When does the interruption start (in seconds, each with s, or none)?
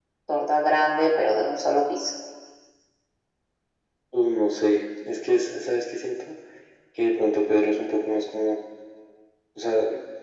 none